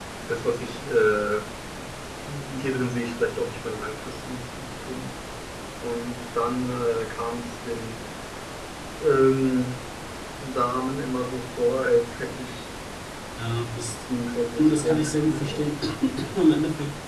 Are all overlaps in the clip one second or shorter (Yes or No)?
No